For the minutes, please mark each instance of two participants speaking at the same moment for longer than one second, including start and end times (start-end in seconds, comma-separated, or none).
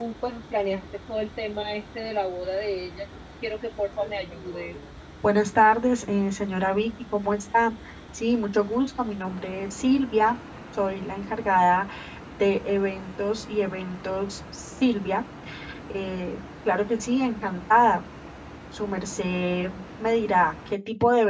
none